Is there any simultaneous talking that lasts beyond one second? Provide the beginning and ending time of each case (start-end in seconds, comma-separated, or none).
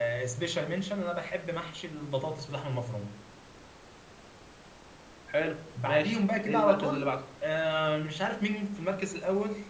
5.8-7.1